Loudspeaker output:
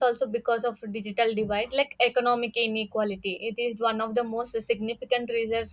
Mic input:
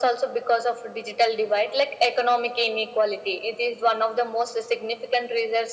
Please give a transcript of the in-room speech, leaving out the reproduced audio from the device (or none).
none